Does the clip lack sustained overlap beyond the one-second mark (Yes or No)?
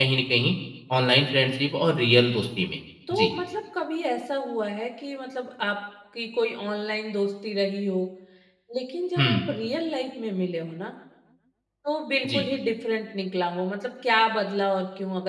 Yes